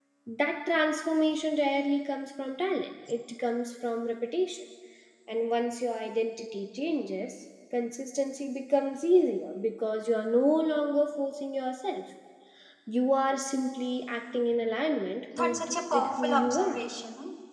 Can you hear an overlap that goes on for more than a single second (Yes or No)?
Yes